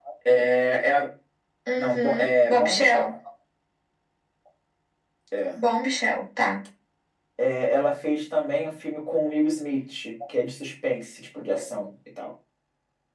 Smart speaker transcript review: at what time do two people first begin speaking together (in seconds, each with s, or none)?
1.8 s